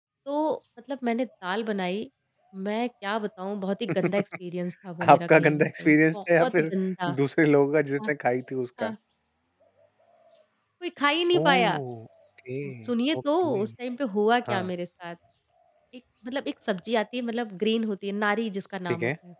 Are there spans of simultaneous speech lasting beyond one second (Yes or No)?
Yes